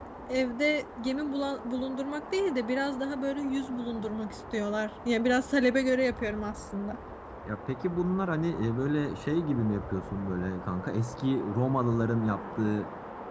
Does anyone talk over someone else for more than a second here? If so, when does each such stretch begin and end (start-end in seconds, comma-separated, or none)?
none